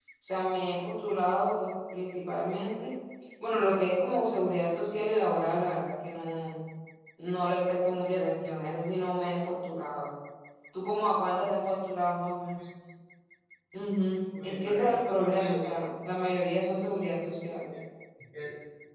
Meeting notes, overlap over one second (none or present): present